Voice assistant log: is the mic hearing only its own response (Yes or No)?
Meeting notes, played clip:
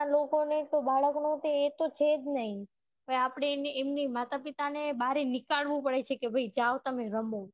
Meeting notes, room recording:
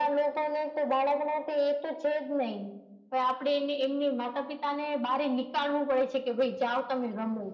Yes